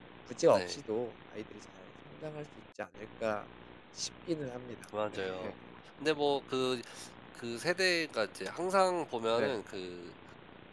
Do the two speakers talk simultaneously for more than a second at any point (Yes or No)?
No